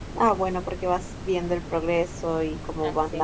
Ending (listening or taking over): listening